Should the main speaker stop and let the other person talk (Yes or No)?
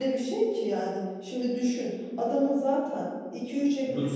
No